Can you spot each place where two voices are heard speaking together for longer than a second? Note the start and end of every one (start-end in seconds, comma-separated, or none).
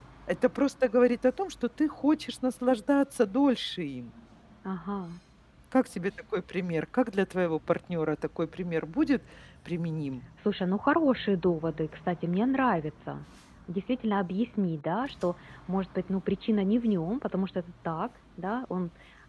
none